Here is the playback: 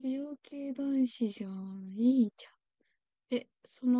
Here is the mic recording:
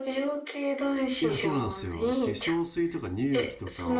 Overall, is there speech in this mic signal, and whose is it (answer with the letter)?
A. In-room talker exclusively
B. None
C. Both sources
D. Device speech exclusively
C